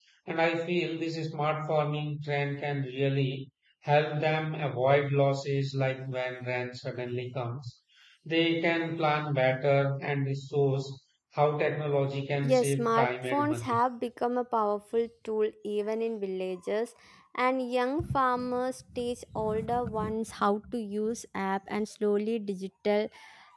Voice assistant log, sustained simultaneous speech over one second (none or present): present